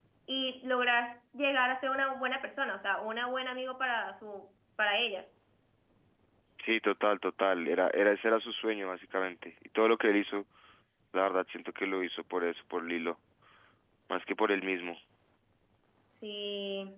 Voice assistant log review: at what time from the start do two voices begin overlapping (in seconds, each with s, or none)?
none